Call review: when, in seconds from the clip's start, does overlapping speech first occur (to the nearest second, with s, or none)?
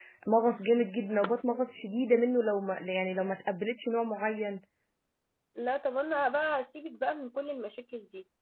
none